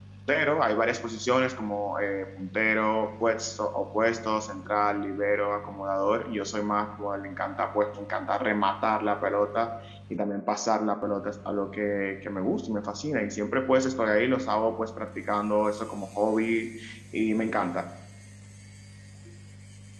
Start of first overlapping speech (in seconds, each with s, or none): none